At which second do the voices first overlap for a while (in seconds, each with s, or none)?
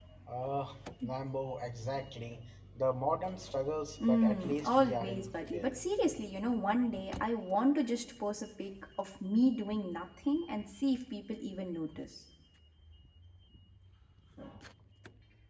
4.0 s